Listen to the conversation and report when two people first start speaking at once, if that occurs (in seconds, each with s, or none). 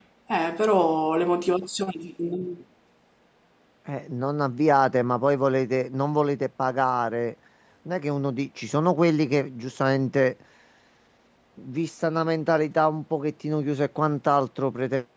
none